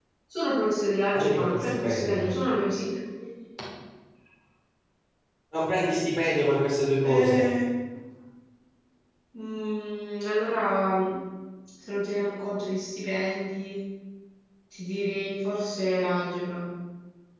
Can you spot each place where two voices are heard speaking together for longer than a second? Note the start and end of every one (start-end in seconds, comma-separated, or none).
1.1-2.4